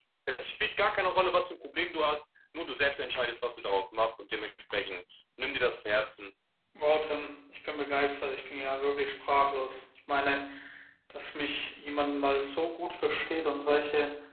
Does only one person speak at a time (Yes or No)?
Yes